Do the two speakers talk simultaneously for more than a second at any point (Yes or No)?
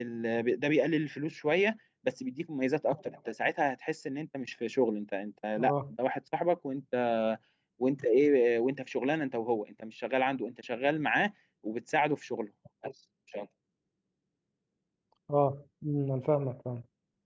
No